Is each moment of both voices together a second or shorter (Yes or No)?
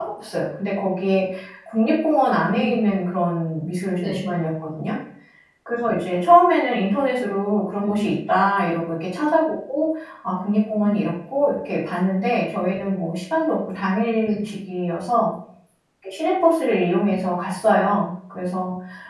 Yes